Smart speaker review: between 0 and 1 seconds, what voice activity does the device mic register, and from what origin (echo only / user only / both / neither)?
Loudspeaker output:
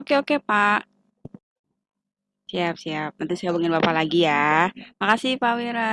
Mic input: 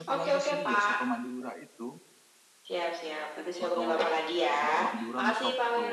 both